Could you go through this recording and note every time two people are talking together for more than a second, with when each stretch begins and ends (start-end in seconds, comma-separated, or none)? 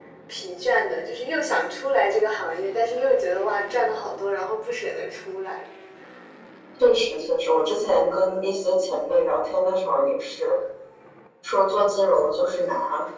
none